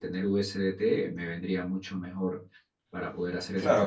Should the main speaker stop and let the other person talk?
Yes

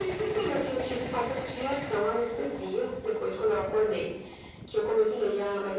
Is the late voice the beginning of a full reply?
No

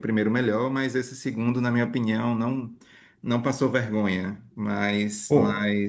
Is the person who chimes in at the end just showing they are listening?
Yes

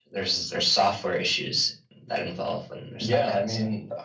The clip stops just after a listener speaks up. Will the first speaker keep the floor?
No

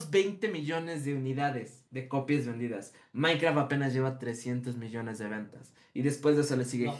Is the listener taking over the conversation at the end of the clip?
No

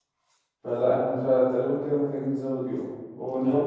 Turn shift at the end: No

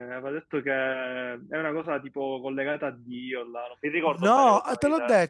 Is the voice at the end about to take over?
Yes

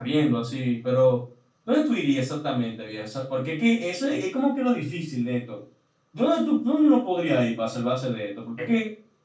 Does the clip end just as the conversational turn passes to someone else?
Yes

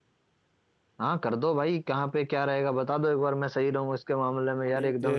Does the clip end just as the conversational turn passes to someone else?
Yes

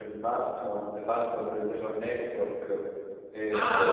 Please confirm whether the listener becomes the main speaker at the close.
Yes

